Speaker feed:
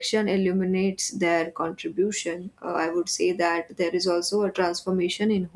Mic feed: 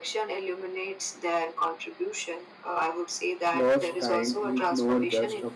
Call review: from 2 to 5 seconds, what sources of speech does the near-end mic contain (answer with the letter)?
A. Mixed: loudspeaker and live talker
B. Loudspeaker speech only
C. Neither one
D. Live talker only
A